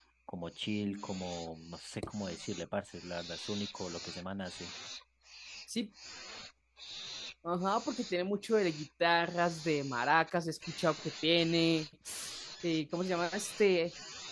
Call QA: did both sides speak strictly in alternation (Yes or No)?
Yes